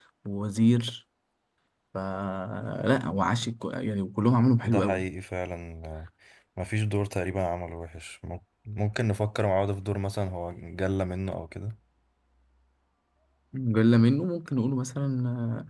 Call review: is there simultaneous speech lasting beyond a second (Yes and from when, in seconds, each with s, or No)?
No